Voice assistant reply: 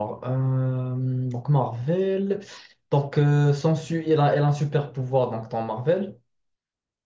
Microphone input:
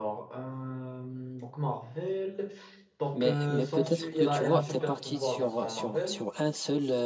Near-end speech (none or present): present